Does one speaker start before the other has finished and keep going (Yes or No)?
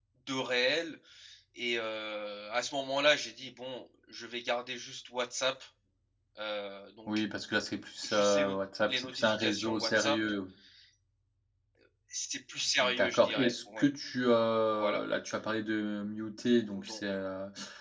Yes